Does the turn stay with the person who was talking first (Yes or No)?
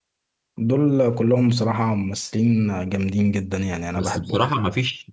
No